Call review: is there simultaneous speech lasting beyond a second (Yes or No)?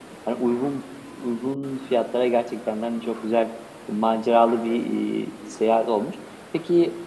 No